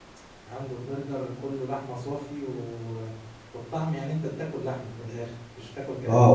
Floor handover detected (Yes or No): Yes